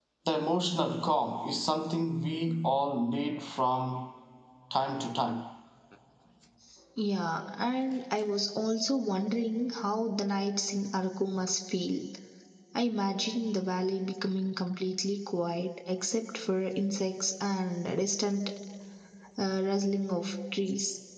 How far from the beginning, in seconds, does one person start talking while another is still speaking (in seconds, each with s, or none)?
none